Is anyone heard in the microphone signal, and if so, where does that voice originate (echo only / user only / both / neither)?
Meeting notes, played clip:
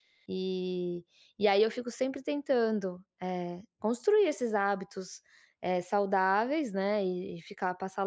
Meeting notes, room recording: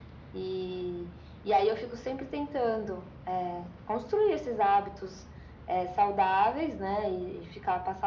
echo only